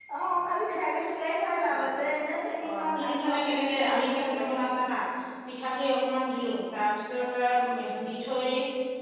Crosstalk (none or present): present